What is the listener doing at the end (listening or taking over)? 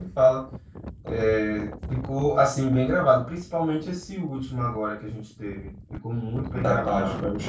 taking over